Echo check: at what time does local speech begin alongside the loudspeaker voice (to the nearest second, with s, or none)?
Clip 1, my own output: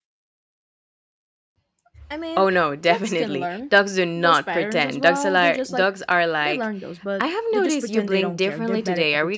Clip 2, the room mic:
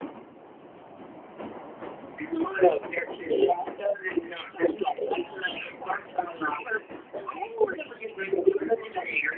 none